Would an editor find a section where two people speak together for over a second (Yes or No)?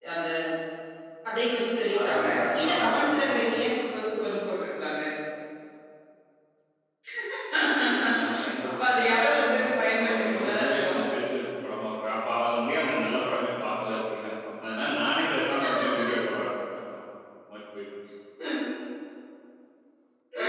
Yes